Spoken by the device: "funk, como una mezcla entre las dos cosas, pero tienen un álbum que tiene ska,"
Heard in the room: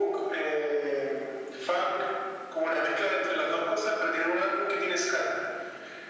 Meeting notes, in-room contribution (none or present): none